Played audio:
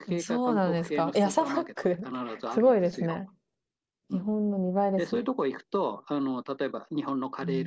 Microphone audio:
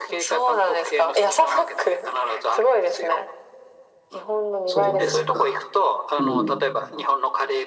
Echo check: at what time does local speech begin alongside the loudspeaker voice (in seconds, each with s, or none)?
4.7 s